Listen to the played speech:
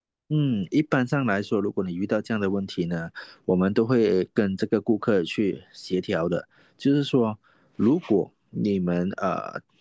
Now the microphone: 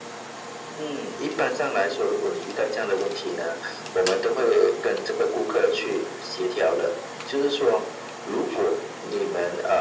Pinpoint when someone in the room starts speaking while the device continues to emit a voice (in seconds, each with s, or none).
none